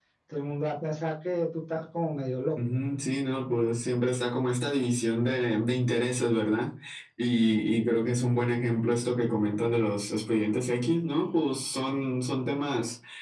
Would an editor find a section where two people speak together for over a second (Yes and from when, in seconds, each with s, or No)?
No